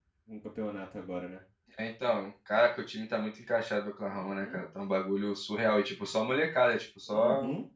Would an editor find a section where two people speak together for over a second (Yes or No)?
No